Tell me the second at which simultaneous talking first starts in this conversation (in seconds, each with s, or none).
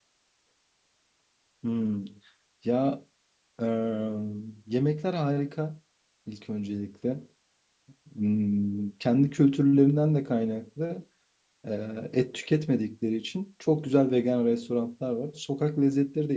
none